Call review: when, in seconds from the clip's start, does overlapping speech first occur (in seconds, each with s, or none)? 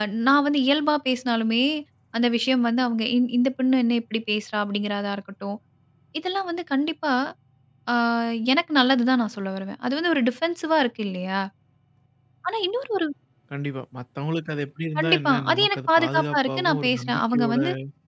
14.9 s